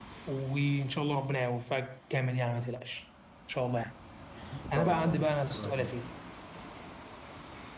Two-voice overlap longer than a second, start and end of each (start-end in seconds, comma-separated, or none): 4.7-5.9